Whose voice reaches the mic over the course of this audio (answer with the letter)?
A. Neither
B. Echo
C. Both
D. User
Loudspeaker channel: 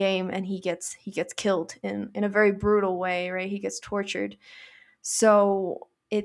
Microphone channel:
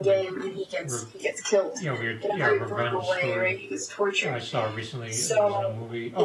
C